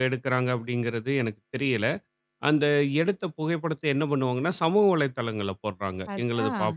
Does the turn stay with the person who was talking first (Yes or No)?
Yes